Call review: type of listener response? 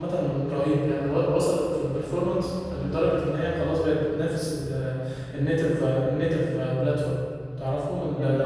listening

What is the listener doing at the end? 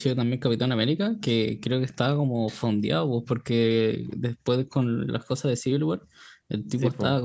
listening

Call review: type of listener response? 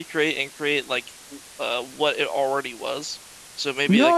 taking over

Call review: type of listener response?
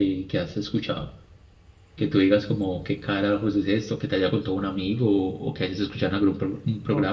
taking over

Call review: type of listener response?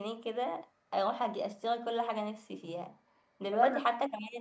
listening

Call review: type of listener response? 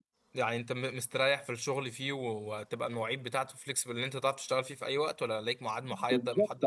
taking over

